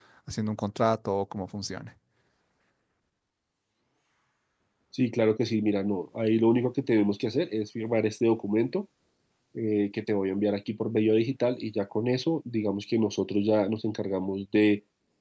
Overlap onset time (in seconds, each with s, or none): none